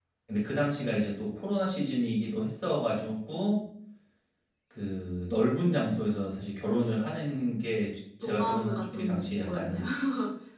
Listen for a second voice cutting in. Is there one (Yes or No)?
Yes